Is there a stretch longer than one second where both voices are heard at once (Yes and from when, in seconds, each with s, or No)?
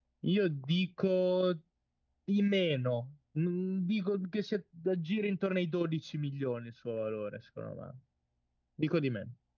No